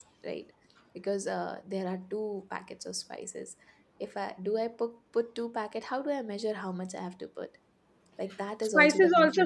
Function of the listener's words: taking over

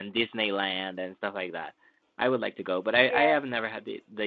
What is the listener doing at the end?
listening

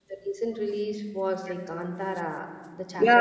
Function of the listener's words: taking over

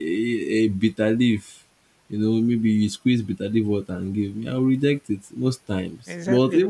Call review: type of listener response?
listening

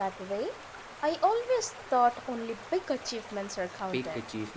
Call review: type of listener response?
taking over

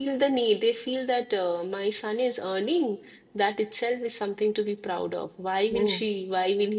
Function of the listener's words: listening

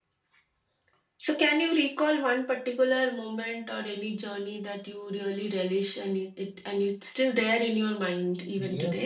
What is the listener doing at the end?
taking over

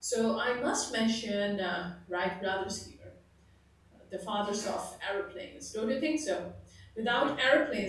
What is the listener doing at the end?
listening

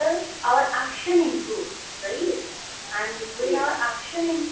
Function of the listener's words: listening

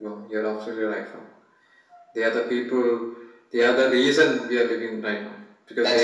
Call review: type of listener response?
listening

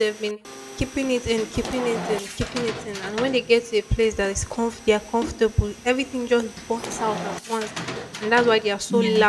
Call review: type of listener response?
listening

